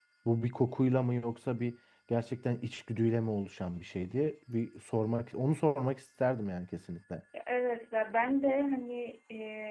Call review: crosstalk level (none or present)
none